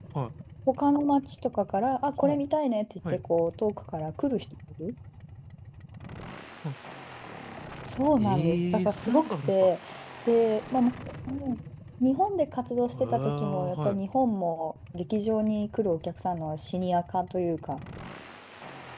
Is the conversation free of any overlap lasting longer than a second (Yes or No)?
No